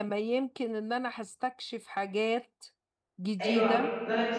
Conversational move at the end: taking over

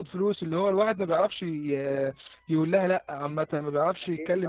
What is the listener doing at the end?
listening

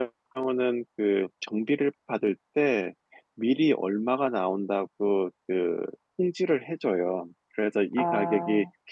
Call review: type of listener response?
listening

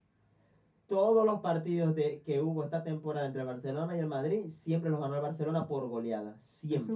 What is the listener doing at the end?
taking over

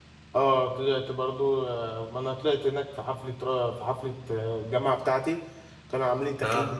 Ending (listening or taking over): listening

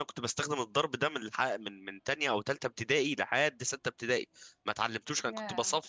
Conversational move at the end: listening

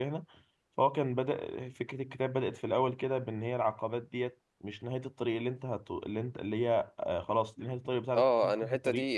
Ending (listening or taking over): taking over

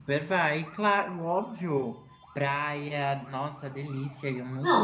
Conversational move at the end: taking over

